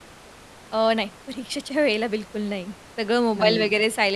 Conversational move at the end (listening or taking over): listening